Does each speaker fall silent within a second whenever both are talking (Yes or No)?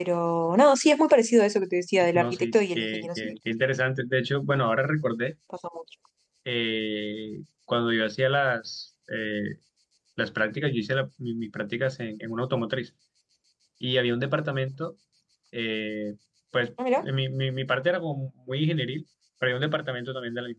No